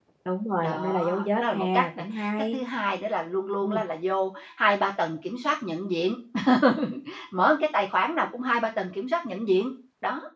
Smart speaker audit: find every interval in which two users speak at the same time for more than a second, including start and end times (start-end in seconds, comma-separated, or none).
0.6-2.6